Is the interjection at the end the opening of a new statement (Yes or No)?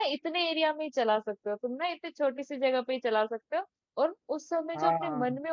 No